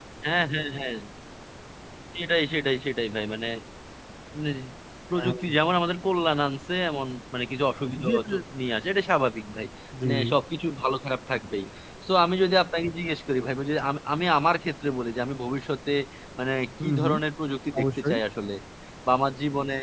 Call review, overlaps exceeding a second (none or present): none